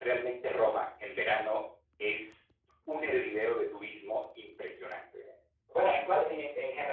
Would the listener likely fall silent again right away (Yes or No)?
No